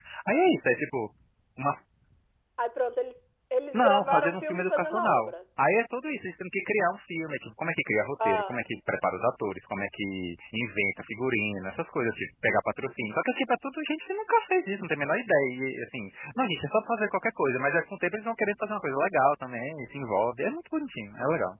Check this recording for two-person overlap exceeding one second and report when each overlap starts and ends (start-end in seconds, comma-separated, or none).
3.7-5.3